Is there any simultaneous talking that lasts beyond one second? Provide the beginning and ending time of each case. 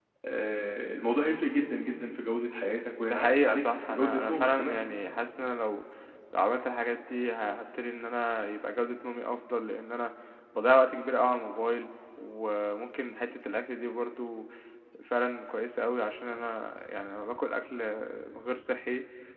3.1-4.8

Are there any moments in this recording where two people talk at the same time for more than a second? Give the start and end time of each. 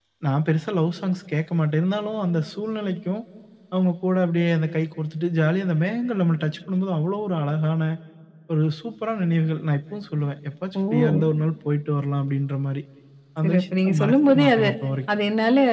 13.4-14.7

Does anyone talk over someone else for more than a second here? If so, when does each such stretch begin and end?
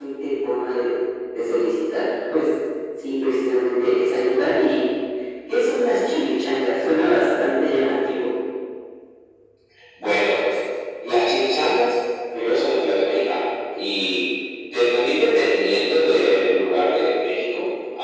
none

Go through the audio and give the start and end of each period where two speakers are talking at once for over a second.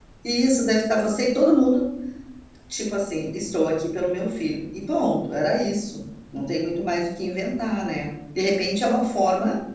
none

